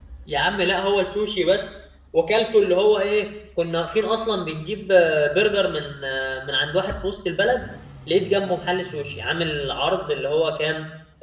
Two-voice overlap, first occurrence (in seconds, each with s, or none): none